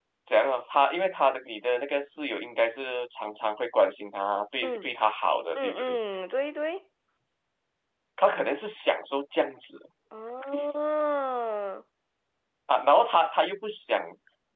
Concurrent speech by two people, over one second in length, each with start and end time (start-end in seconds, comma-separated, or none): none